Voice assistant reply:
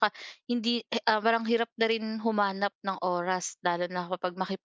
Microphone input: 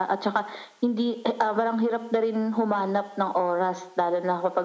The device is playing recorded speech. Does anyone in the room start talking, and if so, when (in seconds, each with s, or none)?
none